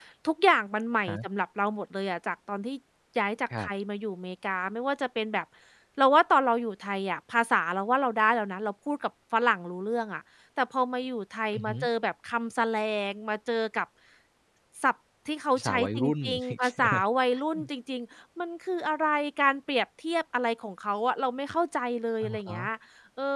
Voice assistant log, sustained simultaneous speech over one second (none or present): present